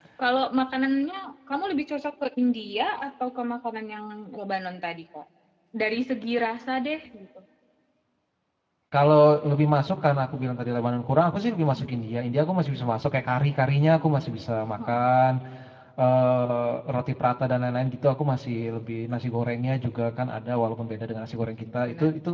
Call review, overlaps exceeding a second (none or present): none